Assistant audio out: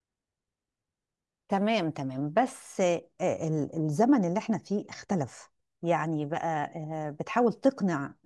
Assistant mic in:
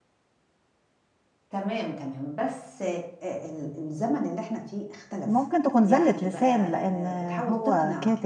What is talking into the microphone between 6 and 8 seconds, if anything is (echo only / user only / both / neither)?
both